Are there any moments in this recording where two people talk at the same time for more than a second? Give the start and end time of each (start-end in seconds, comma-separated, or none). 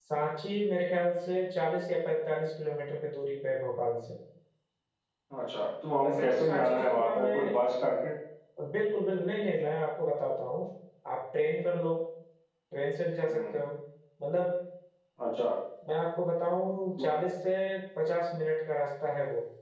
6.0-7.5